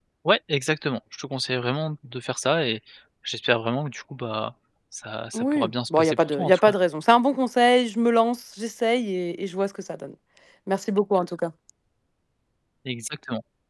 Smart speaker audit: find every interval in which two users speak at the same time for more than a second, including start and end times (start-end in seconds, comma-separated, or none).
5.3-6.7